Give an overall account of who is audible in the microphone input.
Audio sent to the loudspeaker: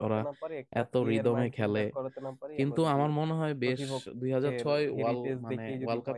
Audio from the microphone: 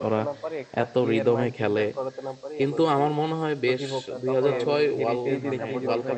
both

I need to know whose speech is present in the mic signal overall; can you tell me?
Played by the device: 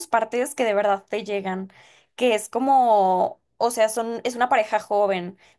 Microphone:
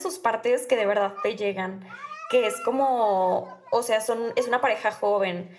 echo only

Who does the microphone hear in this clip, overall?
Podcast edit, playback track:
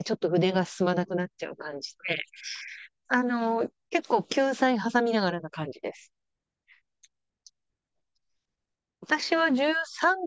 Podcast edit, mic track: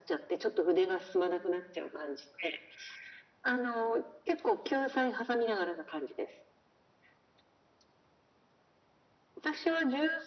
echo only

